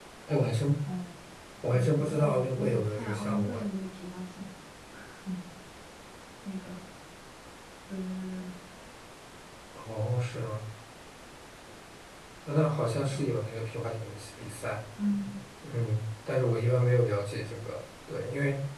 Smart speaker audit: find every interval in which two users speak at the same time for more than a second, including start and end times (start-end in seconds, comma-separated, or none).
1.6-3.6